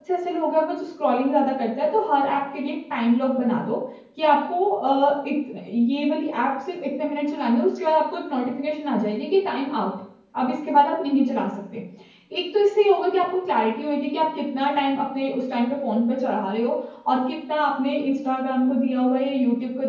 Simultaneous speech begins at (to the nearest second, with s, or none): none